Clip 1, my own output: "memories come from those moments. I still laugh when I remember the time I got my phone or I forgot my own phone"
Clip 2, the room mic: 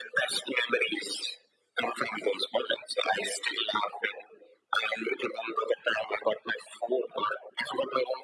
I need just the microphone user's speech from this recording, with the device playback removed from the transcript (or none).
none